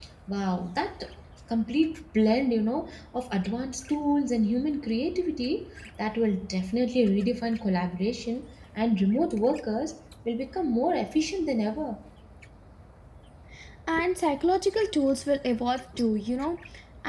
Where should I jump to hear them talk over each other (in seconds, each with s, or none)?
none